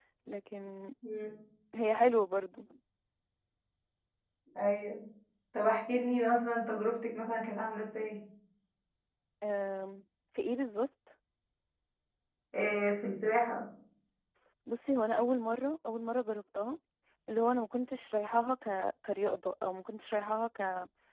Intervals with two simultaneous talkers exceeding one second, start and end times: none

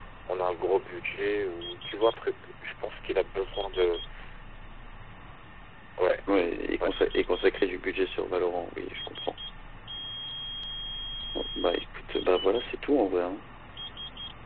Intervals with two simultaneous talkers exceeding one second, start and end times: none

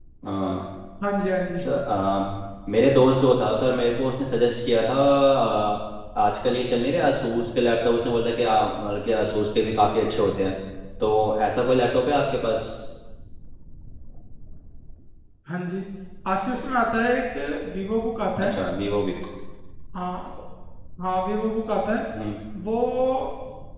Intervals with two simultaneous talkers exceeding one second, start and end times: none

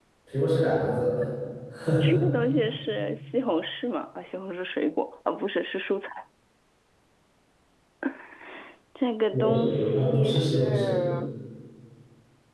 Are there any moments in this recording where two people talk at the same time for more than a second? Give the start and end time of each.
9.3-11.0

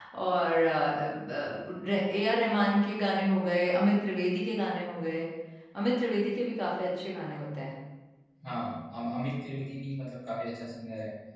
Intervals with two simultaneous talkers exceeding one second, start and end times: none

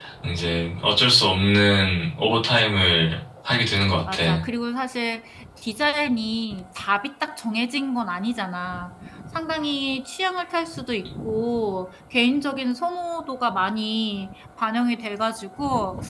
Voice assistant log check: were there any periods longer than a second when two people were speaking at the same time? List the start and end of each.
none

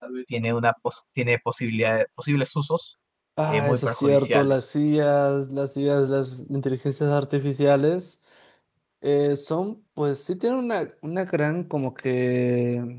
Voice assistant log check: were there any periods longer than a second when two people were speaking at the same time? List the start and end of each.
3.5-4.7

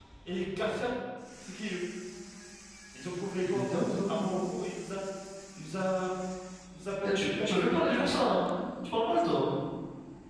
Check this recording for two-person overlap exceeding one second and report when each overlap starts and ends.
7.0-8.2

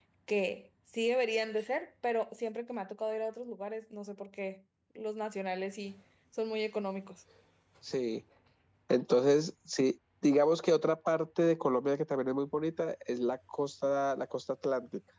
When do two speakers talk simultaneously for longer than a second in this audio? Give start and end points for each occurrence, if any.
none

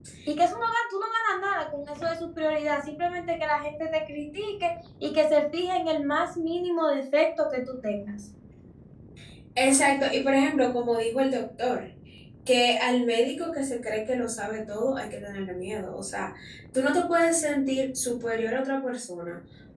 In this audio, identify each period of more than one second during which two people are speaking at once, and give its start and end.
none

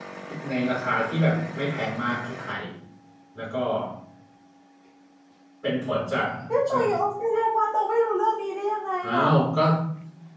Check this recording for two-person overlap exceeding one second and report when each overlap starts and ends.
none

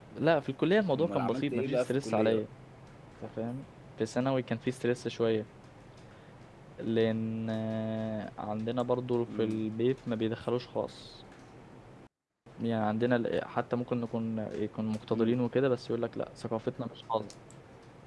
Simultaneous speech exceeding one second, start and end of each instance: 0.9-2.4

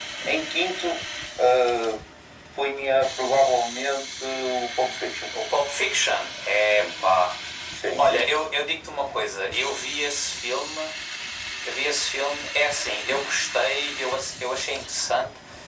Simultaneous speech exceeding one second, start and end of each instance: none

